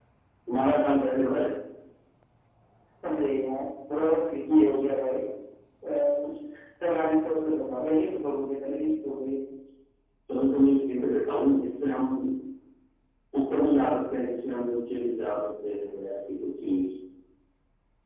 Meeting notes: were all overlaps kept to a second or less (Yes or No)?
Yes